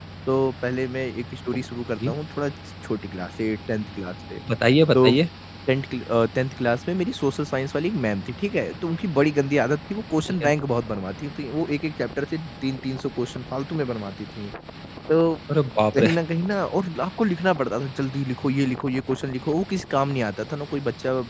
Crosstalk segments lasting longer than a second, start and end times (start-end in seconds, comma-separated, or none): none